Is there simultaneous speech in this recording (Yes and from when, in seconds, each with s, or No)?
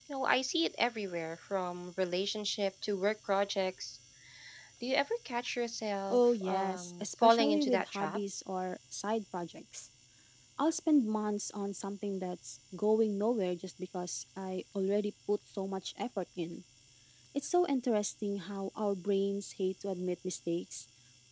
Yes, from 6.1 s